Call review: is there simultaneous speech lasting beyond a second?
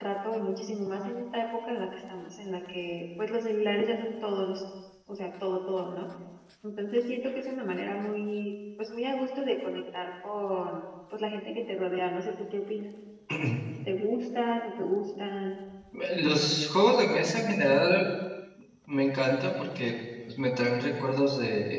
No

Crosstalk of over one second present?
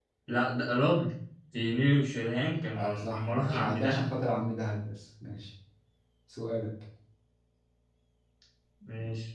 Yes, from 2.7 s

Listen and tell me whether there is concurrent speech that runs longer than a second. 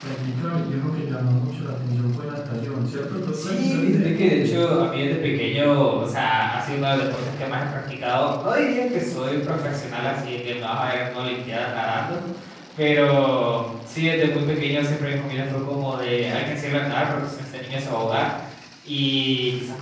Yes, from 3.3 s

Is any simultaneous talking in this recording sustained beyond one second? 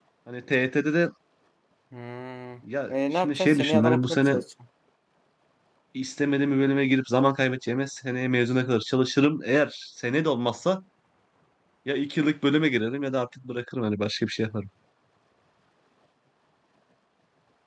Yes, from 2.9 s

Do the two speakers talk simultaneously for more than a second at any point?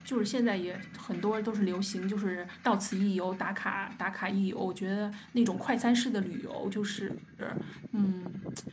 No

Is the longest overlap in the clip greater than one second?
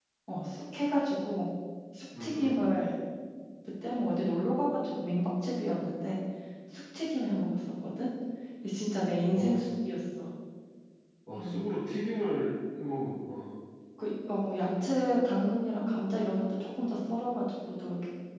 No

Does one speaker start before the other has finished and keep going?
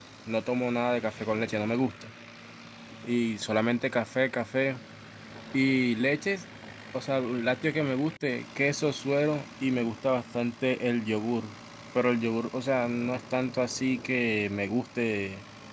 No

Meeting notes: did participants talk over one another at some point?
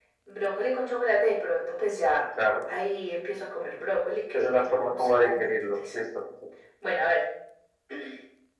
Yes, from 4.3 s

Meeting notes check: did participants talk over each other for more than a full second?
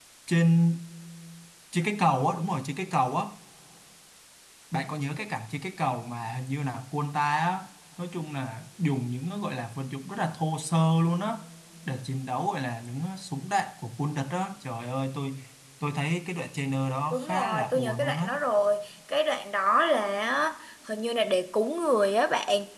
Yes, from 17.1 s

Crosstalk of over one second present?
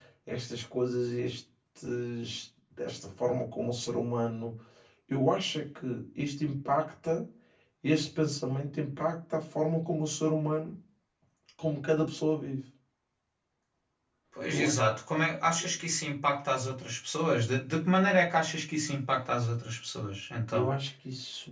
No

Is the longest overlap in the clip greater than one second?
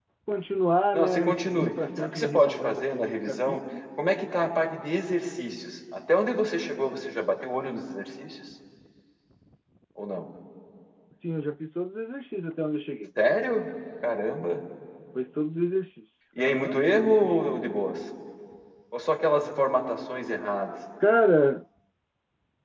Yes, from 0.9 s

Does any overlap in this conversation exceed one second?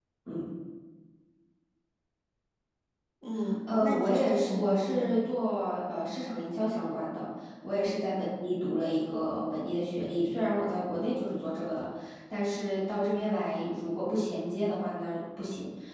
Yes, from 3.8 s

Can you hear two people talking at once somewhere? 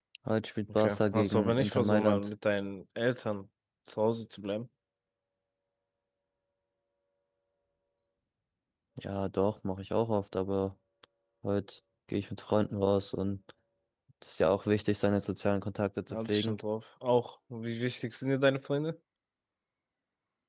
Yes, from 0.7 s

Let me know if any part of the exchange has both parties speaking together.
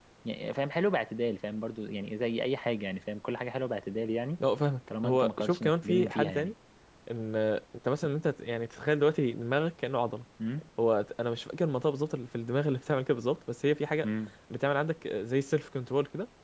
Yes, from 5.0 s

